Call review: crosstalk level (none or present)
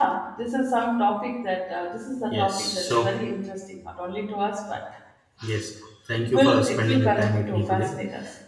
present